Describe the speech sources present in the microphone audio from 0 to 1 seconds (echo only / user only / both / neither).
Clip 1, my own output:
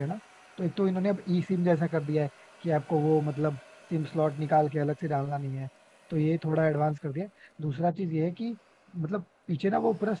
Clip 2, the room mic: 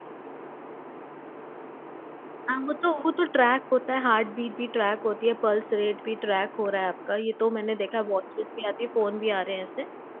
neither